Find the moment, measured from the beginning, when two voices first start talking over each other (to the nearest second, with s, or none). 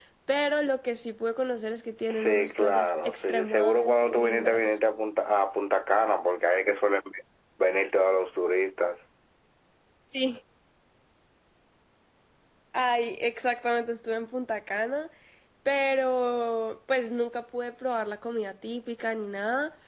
2 s